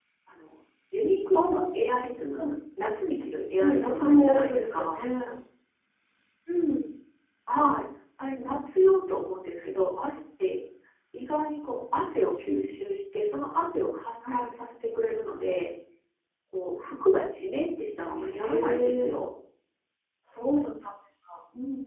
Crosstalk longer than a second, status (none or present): present